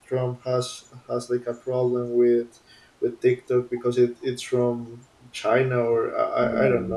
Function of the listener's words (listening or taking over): taking over